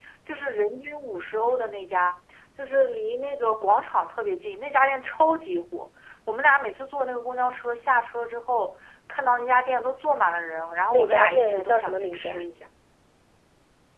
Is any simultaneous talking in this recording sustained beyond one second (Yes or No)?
Yes